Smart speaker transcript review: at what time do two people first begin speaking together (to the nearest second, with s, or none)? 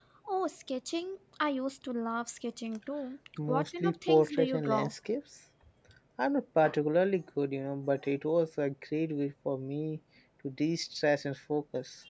3 s